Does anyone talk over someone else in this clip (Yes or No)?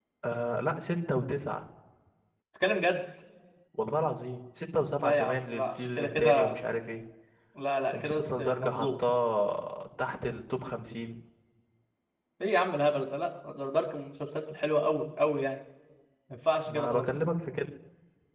Yes